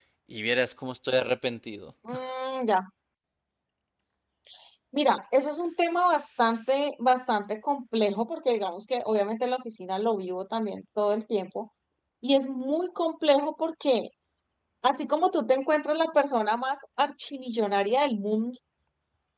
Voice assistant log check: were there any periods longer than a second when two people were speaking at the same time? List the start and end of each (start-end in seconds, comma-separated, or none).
none